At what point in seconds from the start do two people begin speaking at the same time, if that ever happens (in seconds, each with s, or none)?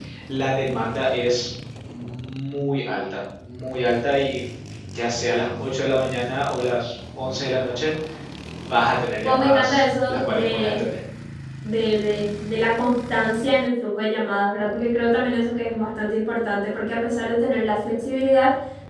9.2 s